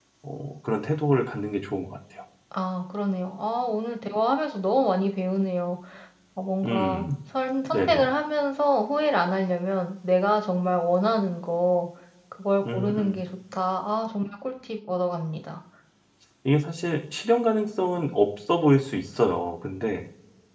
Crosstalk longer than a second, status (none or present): none